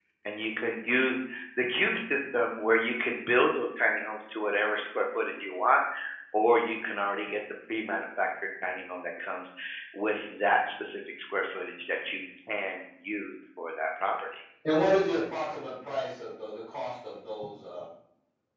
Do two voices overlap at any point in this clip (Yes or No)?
No